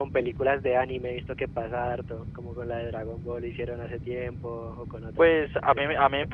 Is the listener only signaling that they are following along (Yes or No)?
No